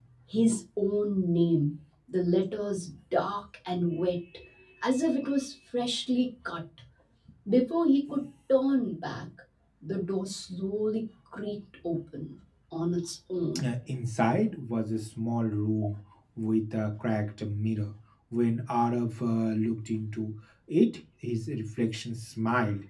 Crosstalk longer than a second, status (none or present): none